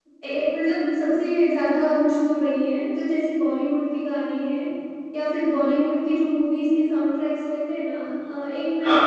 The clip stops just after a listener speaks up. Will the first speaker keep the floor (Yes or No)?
Yes